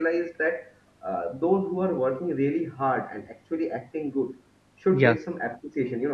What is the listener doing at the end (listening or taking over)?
listening